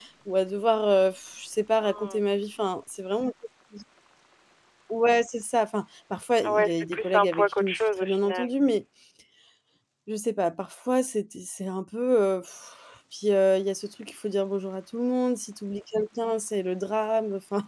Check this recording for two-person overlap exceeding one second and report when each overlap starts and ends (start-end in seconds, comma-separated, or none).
6.4-8.5